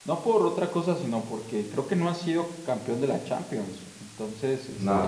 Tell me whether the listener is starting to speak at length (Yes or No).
No